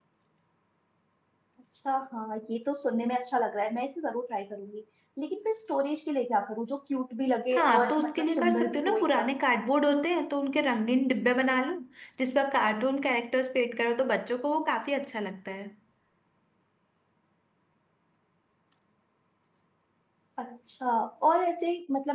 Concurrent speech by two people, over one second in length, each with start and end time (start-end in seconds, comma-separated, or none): 7.5-9.3